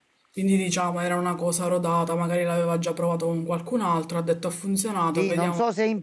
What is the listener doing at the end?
taking over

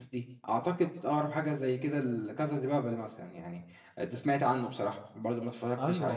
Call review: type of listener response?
taking over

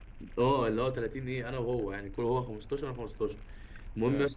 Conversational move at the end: listening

